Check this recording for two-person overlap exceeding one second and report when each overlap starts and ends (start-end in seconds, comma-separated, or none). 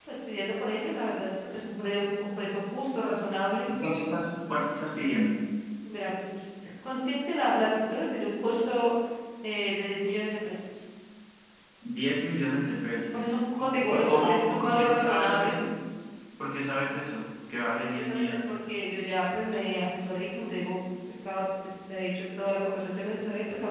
13.1-15.6